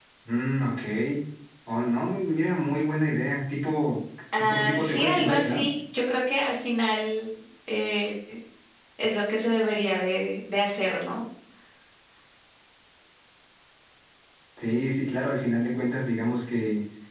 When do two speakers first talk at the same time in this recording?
4.4 s

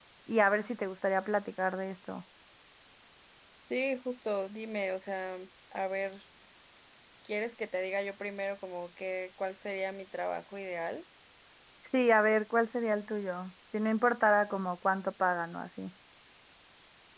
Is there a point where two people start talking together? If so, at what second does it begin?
none

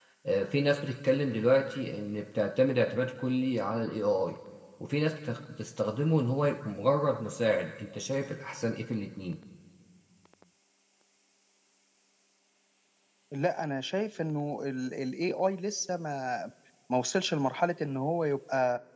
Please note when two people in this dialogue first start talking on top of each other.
none

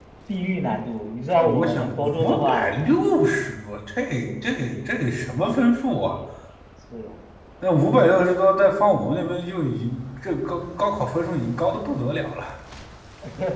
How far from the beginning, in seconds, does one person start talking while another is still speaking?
1.4 s

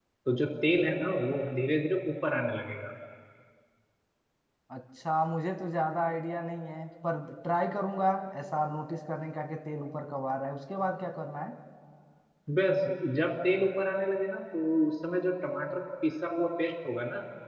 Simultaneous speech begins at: none

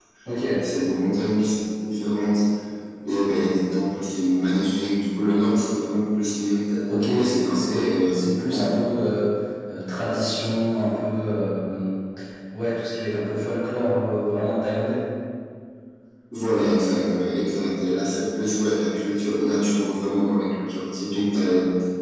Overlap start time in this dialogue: 6.9 s

